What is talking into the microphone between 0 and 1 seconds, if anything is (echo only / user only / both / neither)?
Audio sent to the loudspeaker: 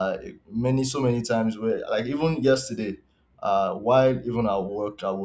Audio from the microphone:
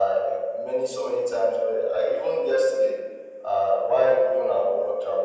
echo only